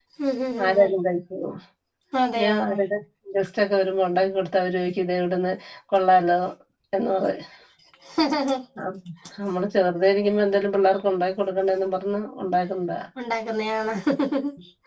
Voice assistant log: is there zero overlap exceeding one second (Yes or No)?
Yes